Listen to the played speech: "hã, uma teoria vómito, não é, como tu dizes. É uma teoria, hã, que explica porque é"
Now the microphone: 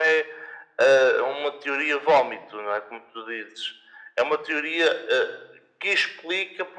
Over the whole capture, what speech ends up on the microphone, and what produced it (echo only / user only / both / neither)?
echo only